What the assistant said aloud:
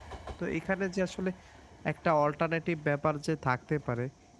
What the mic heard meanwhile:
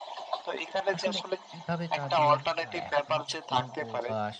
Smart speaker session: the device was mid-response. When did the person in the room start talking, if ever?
1 s

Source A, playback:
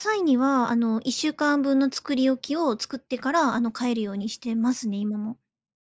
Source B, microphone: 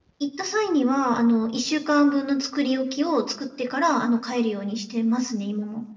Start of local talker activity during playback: none

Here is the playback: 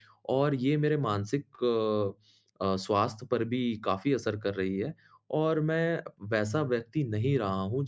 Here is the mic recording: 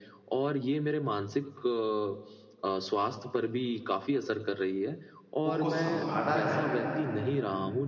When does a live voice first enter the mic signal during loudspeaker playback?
6 s

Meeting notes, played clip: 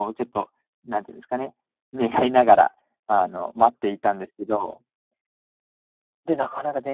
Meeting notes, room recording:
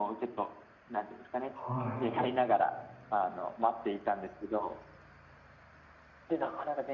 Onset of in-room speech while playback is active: 2 s

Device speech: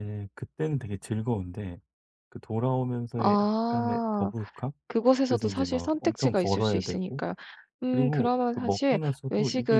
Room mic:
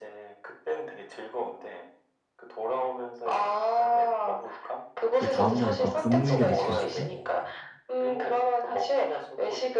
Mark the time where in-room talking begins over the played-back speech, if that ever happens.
5 s

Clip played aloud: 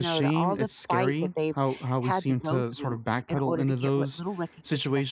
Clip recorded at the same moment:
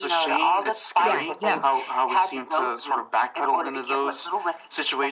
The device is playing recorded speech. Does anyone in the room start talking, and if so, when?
1 s

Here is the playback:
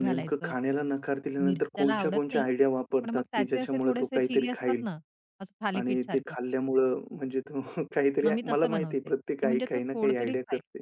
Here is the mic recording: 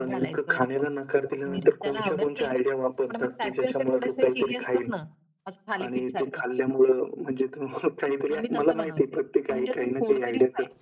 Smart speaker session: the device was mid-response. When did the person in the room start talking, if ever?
none

